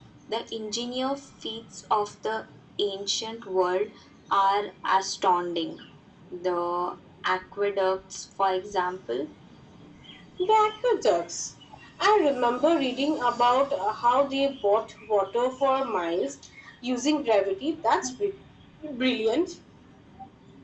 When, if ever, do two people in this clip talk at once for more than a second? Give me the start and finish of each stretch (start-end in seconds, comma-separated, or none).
none